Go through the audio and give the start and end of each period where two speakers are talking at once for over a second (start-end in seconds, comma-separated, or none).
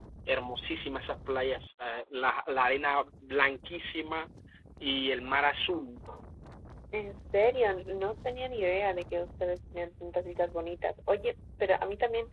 none